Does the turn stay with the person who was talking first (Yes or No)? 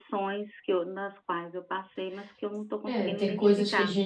No